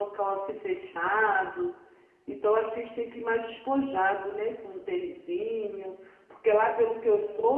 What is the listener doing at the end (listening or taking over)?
listening